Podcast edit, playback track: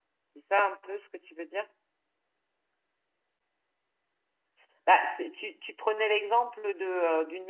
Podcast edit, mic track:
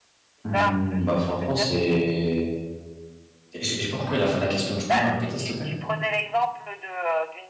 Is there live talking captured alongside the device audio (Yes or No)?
Yes